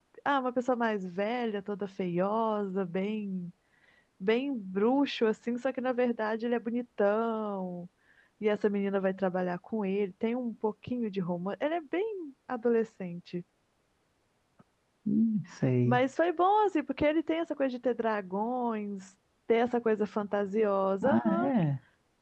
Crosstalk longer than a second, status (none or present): none